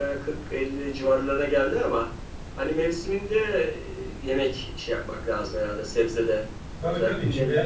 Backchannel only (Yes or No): No